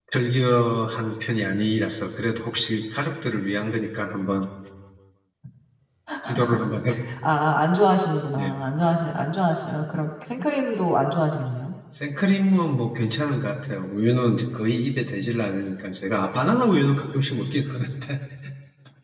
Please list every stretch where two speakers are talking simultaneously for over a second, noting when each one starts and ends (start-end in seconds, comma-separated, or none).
none